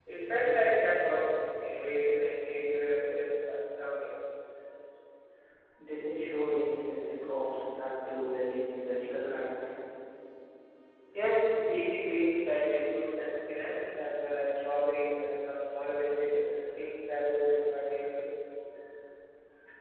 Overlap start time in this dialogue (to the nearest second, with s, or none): none